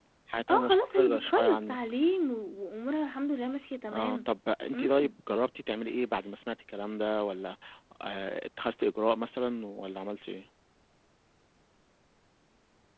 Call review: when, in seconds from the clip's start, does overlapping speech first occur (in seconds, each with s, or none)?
0.5 s